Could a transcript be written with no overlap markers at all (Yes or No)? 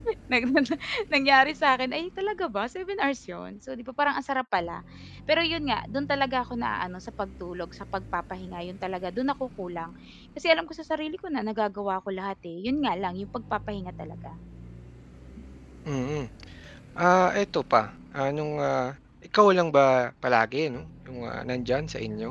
Yes